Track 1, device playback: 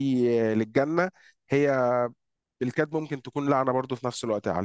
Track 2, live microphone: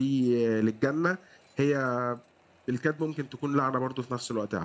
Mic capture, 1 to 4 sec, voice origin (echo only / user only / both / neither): echo only